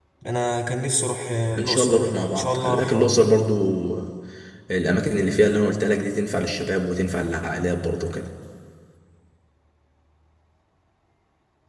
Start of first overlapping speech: 2 s

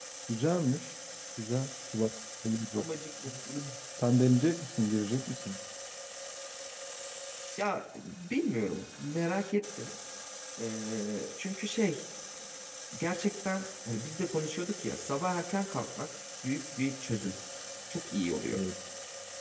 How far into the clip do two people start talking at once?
none

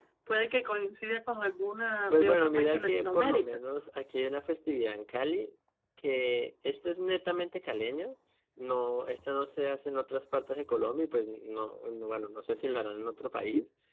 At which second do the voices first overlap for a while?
2 s

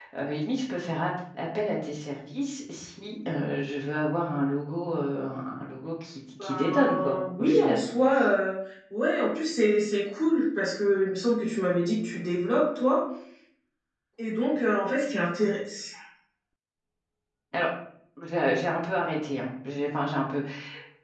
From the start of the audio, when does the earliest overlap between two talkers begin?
6 s

